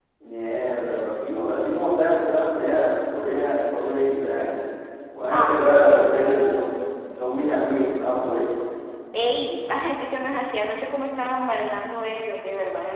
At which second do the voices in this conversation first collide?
5.3 s

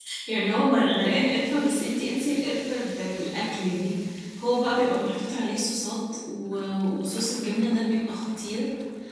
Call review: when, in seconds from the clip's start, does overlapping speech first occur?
none

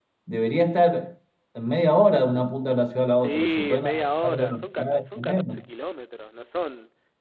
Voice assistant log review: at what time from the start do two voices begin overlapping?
3.2 s

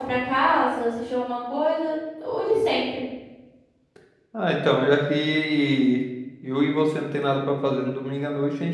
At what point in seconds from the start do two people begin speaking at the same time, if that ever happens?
none

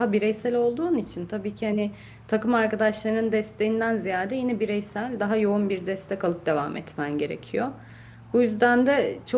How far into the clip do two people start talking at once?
none

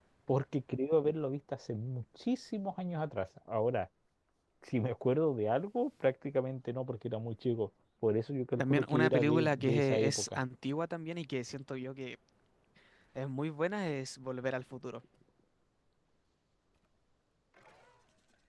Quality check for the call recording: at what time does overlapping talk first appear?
8.6 s

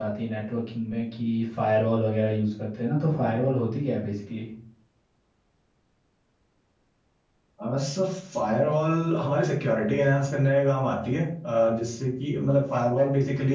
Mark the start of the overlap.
none

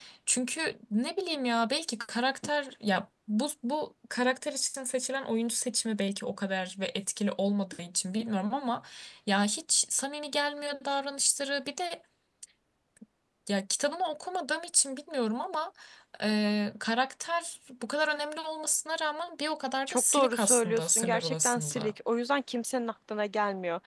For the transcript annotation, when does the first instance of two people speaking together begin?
19.9 s

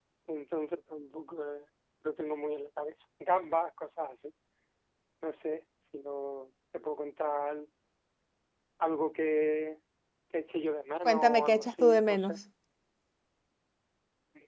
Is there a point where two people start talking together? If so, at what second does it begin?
11.0 s

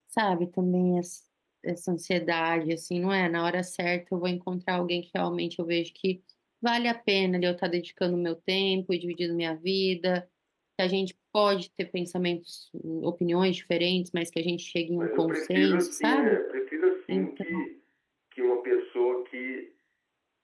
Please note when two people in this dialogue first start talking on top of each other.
15.0 s

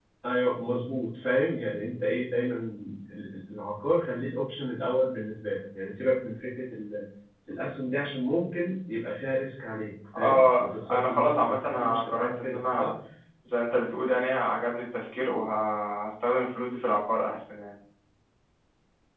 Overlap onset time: 10.1 s

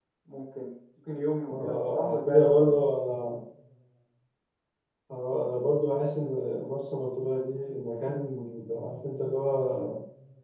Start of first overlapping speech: 1.5 s

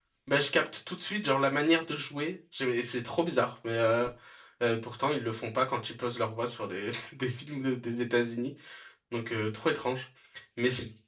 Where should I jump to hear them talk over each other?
none

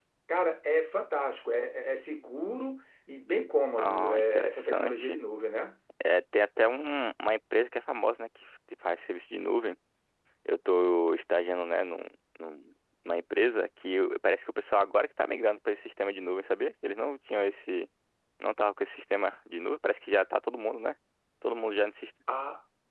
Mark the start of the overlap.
3.8 s

